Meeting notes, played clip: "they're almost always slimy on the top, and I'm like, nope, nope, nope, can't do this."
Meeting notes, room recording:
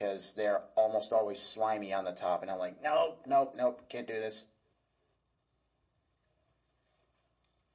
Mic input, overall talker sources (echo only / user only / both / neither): echo only